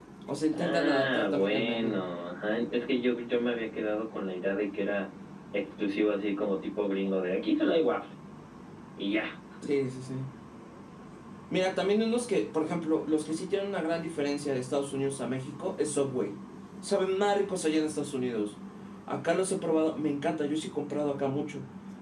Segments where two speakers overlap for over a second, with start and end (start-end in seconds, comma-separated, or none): 0.5-2.0